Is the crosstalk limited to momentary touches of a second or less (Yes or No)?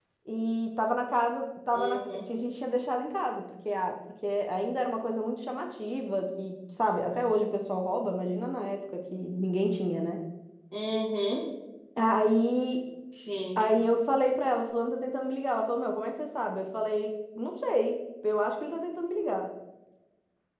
Yes